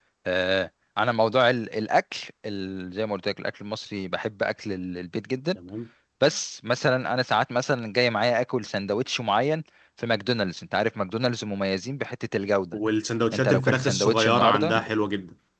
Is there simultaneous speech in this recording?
Yes, from 13.3 s

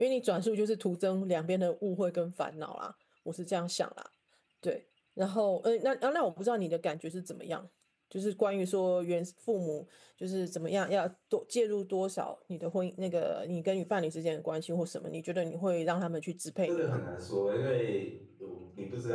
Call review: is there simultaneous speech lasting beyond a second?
No

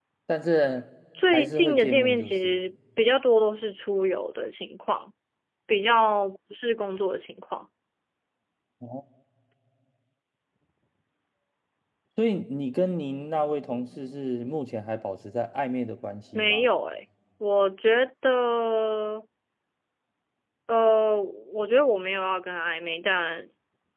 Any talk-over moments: Yes, from 1.3 s

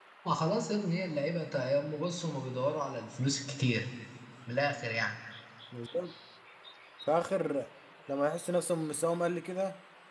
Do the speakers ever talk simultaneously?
No

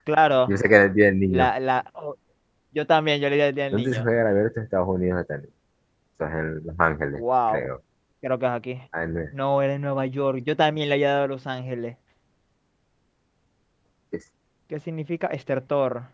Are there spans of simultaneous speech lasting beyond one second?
No

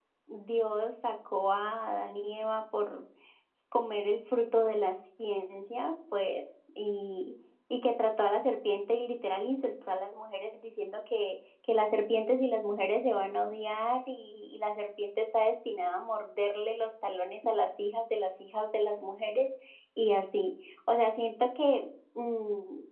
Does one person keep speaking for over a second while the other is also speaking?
No

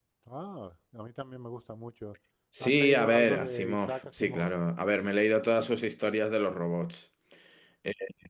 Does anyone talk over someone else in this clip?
Yes, from 2.6 s

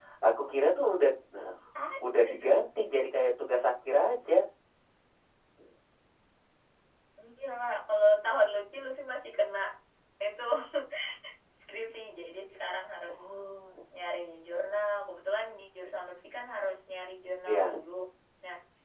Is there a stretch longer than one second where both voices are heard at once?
No

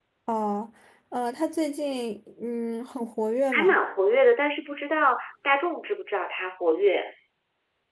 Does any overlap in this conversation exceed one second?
No

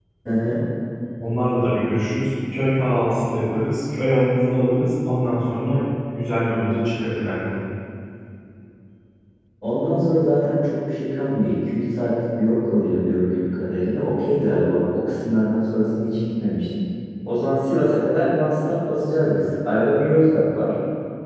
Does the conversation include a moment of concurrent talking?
No

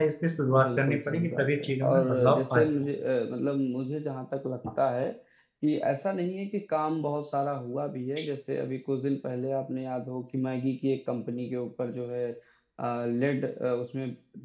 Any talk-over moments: Yes, from 0.6 s

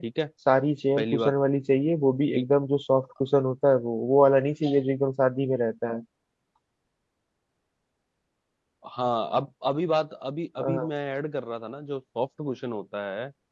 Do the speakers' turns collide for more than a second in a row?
No

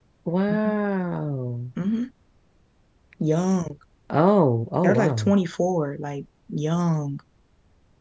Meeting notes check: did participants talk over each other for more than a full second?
No

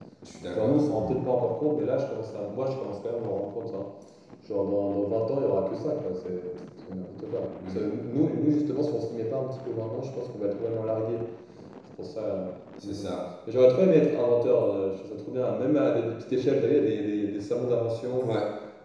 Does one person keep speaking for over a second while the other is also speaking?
No

